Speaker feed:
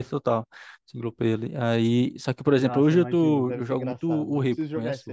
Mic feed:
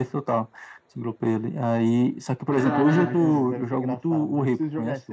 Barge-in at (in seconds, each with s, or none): 2.5 s